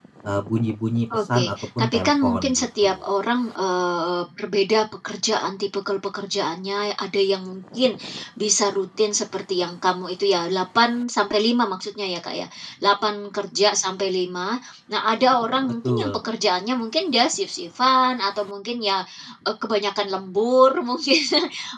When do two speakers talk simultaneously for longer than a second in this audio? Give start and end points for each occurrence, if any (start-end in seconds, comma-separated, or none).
1.1-2.9